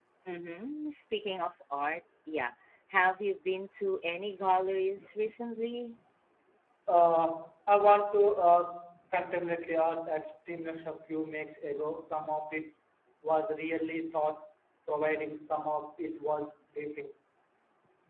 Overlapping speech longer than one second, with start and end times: none

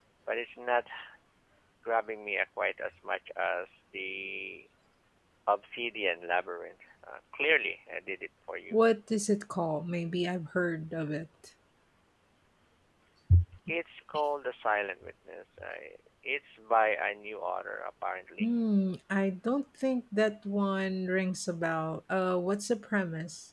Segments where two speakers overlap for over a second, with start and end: none

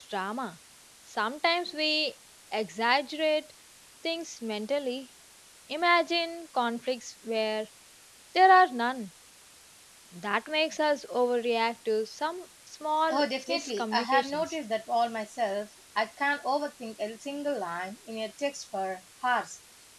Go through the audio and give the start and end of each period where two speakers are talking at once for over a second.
13.1-14.5

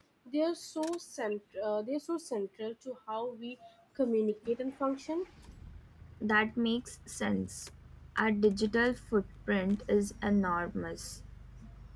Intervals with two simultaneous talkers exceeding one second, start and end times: none

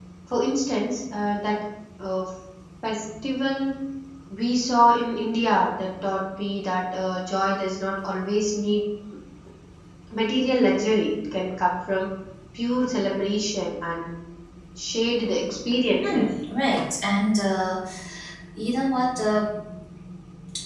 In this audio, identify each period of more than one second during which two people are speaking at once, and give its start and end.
none

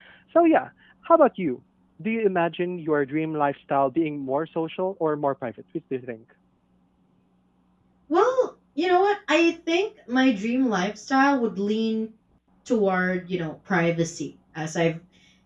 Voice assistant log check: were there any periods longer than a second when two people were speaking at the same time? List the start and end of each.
none

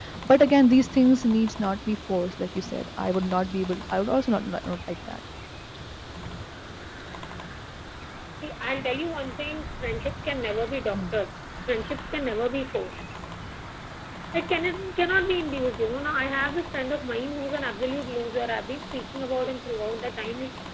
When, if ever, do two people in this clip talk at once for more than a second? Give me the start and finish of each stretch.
none

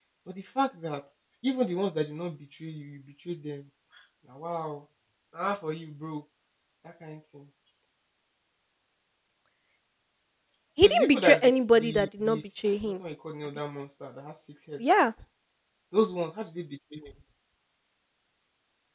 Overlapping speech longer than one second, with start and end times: 10.8-12.9

